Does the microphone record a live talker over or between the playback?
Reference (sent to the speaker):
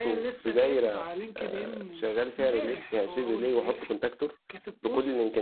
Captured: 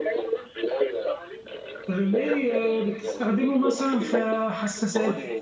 Yes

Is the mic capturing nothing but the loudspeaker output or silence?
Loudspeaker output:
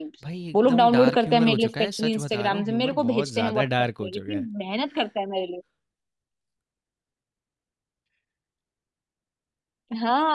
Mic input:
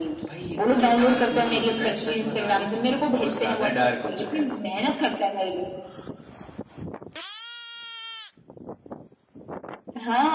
Yes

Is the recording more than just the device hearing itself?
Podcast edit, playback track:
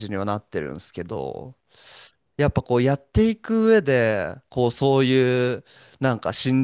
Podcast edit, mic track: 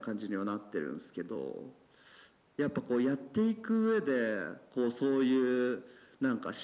No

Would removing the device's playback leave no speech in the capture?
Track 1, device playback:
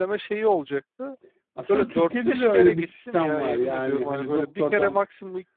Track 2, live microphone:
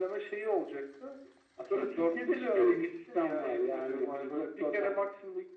Yes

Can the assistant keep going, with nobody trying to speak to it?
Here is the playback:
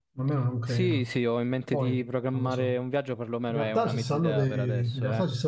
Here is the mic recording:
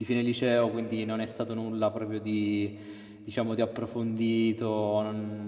No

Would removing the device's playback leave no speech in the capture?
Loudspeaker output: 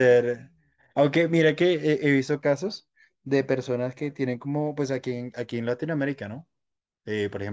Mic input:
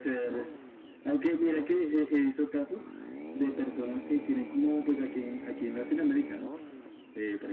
Yes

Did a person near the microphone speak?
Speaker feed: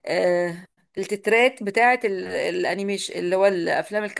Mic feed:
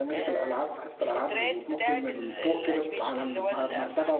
Yes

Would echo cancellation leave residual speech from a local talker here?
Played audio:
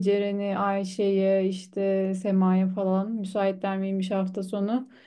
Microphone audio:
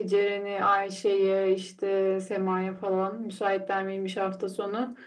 No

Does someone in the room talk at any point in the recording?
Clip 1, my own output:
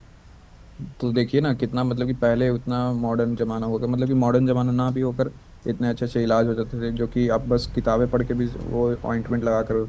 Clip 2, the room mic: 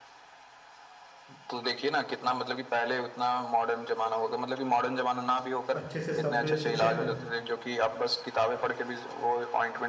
Yes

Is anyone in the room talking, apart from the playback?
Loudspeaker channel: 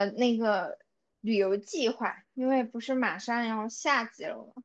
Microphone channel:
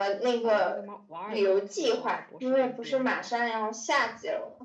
Yes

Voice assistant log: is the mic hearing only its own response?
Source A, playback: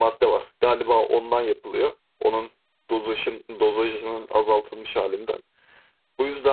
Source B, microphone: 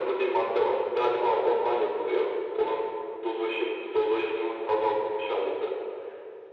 Yes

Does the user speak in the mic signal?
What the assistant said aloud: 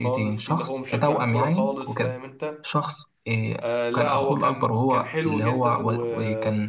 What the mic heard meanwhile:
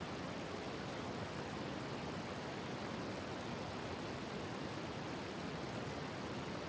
No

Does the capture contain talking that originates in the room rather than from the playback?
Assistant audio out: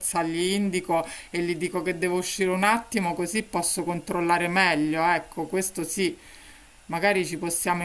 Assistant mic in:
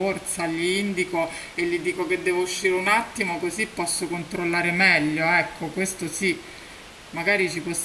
No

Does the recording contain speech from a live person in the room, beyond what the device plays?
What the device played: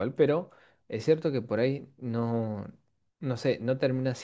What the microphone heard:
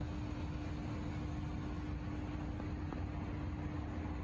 No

